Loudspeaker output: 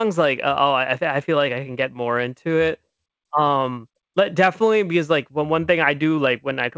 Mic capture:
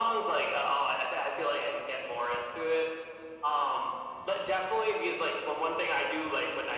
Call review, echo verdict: present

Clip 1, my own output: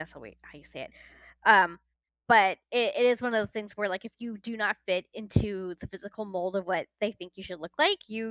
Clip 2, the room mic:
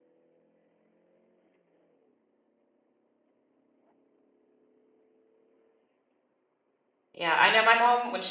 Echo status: none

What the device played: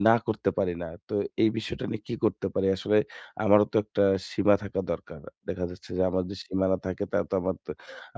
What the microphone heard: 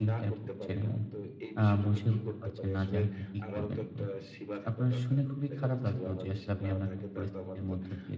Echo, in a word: present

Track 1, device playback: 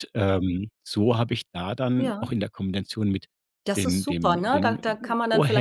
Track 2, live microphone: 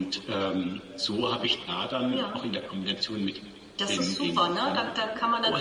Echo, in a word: present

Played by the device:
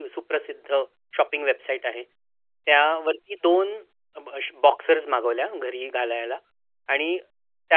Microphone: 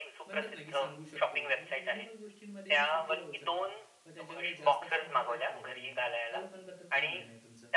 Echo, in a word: present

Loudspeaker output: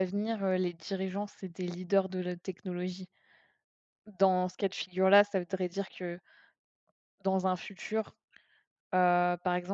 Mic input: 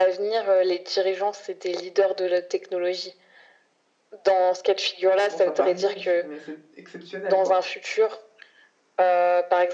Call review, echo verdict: present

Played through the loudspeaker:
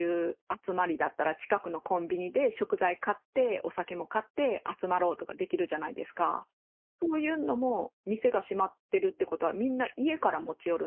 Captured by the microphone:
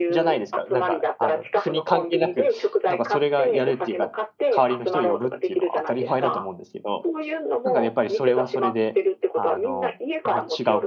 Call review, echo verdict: present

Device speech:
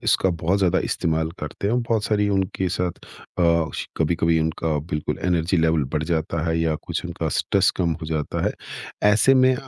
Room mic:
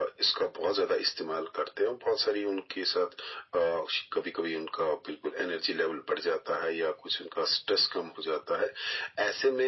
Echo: present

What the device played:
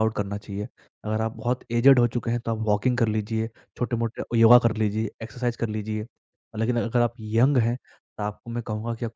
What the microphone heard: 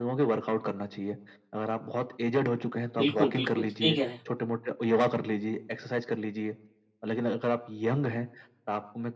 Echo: present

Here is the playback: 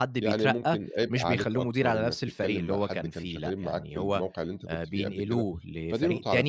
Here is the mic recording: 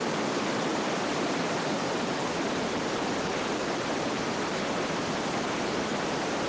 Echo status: none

